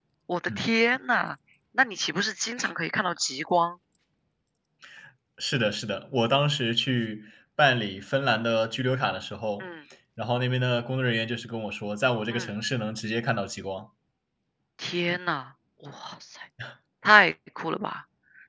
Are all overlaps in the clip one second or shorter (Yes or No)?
Yes